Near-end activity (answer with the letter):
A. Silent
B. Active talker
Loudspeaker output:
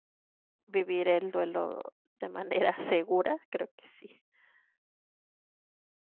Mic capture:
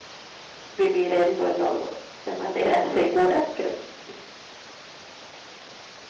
A